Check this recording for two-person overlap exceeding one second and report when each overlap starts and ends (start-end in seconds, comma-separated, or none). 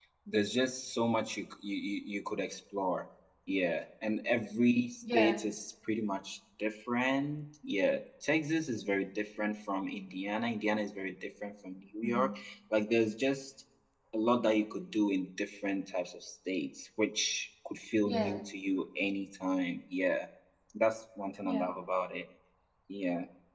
none